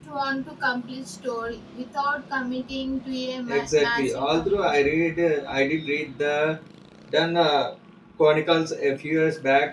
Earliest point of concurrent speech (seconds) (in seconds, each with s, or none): 3.5 s